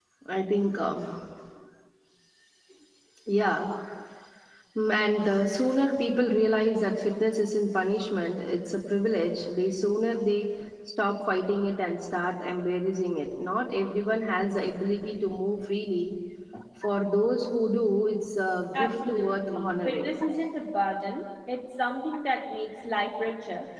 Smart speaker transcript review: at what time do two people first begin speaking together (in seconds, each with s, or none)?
18.7 s